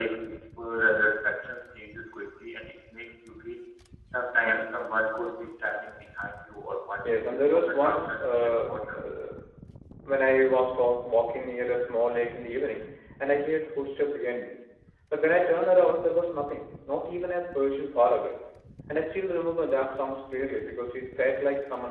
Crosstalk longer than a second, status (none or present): present